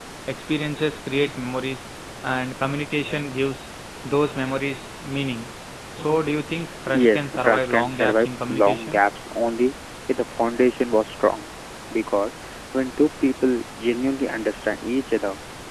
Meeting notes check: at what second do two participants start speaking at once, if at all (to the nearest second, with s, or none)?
7 s